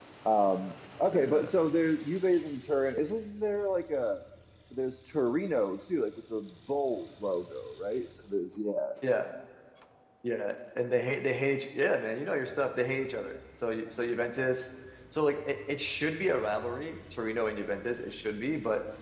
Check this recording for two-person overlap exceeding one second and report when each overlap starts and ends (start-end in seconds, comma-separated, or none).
none